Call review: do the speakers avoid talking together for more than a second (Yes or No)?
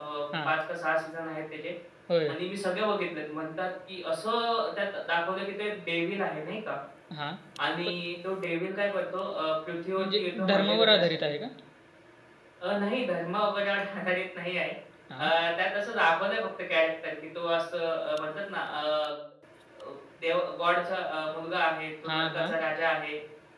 No